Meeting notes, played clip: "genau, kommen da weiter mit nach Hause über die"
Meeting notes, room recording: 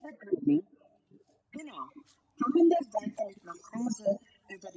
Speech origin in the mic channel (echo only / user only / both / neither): echo only